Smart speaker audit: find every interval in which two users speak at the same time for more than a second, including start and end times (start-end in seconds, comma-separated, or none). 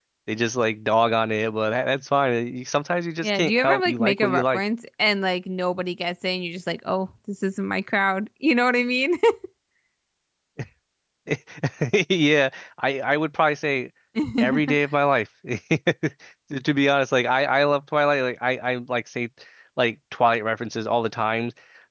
3.2-4.6